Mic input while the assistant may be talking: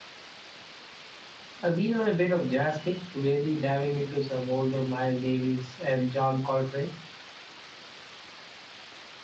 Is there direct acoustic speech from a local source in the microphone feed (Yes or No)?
Yes